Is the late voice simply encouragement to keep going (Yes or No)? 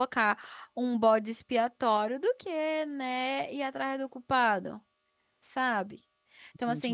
Yes